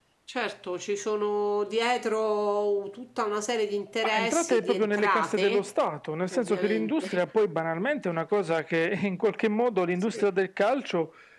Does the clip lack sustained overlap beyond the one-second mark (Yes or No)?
No